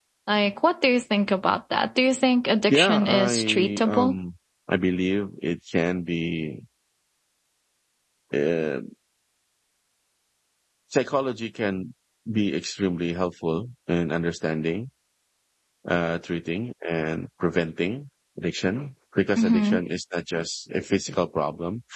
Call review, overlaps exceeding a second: present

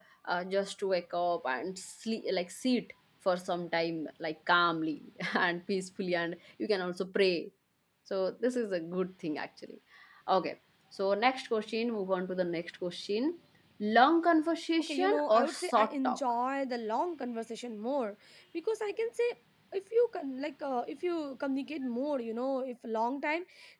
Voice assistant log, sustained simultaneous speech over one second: present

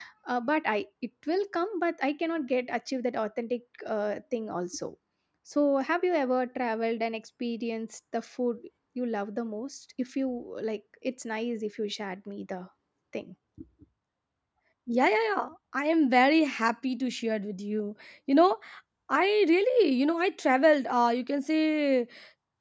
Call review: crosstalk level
none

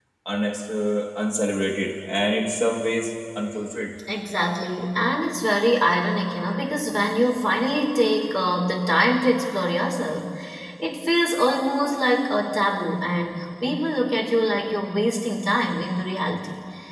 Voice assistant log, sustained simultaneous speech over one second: none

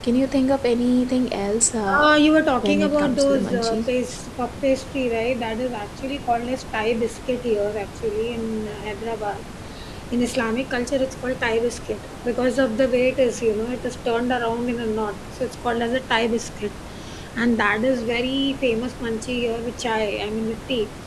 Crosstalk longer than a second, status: present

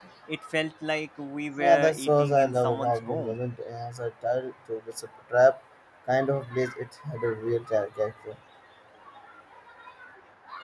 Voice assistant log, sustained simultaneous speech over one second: present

